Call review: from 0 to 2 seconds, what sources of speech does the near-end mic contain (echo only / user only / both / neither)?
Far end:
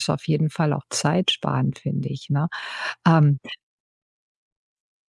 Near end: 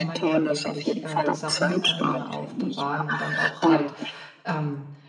both